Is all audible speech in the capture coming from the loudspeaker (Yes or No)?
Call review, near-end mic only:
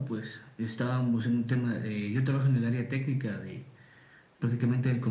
Yes